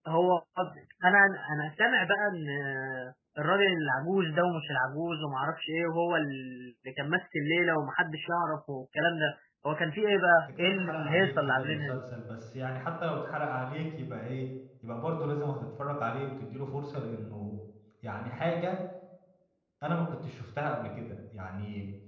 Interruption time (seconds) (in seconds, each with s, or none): 10.6 s